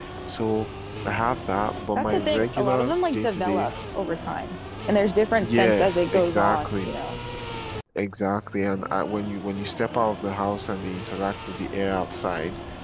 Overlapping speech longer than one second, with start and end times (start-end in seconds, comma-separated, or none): 1.9-3.7, 5.3-6.9